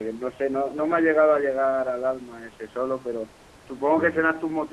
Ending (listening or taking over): listening